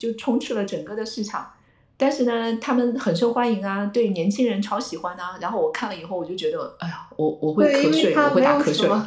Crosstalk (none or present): present